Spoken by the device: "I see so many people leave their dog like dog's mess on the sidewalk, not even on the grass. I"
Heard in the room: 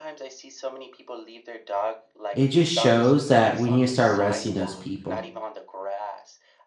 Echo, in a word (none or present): present